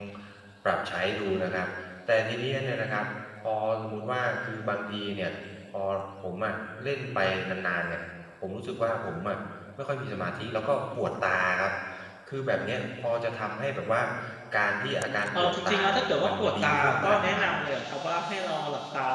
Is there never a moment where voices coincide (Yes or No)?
No